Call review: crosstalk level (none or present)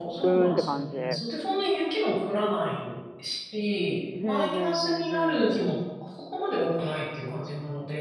present